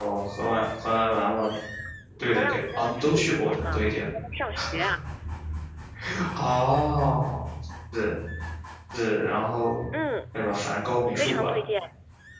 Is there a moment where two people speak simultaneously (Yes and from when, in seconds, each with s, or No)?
Yes, from 2.3 s